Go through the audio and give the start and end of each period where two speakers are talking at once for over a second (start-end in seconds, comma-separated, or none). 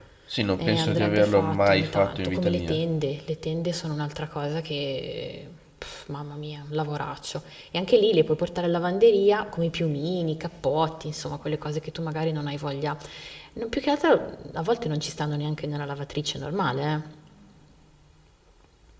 0.6-2.8